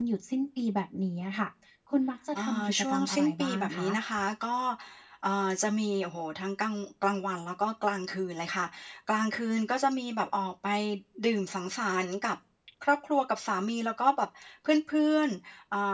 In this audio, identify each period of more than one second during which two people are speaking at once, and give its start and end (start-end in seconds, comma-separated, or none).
2.4-3.9